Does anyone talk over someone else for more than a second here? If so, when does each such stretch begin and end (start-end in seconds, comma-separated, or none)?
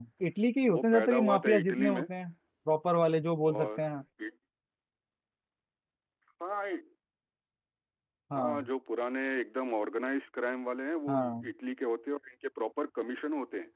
0.7-2.1